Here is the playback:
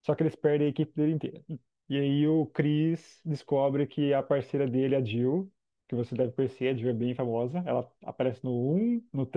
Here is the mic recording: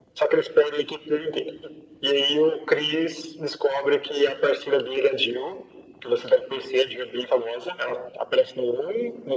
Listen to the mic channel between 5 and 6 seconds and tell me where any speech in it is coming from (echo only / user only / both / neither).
echo only